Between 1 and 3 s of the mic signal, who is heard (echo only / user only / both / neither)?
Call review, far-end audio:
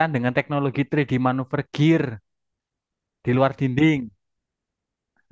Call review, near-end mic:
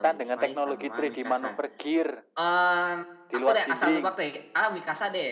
both